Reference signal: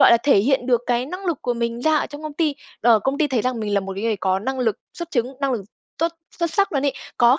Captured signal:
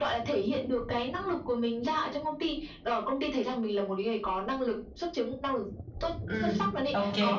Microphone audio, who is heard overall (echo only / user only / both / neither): both